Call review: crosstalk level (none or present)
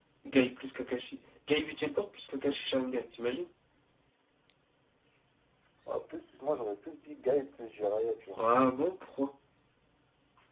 none